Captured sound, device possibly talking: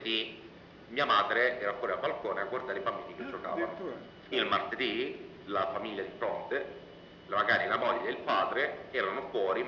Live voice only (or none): Ah, addirittura? Dai.